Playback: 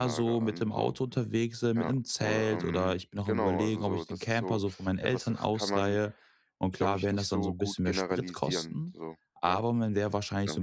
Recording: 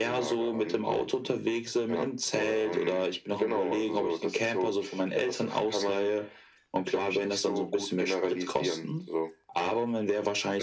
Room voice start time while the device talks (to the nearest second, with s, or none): none